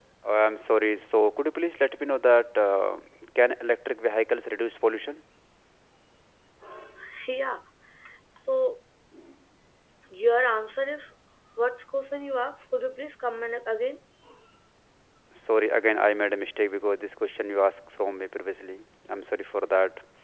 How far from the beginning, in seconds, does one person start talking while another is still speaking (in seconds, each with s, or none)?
none